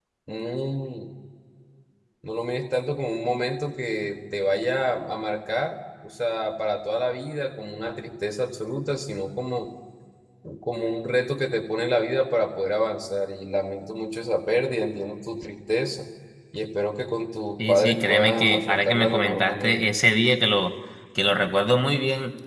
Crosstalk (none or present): present